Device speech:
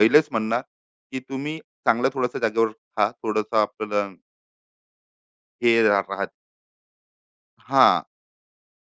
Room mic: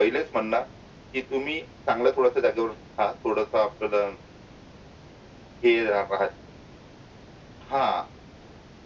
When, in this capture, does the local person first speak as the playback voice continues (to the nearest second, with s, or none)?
none